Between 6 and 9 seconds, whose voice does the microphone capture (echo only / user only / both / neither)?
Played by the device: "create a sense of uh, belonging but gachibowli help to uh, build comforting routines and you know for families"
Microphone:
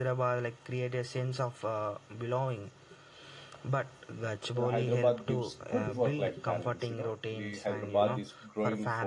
both